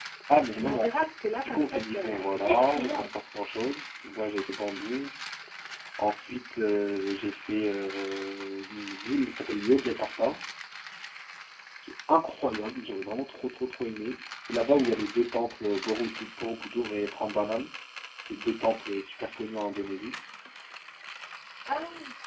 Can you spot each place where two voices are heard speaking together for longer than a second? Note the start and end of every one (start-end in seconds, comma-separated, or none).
1.4-3.1